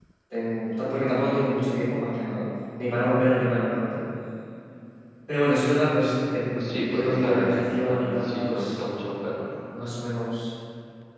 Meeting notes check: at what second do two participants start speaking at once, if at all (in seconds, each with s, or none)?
6.5 s